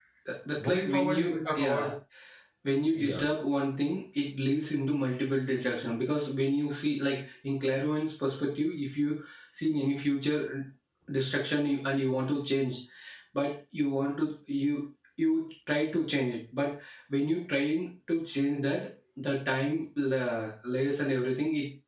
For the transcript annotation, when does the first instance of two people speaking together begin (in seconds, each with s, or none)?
0.6 s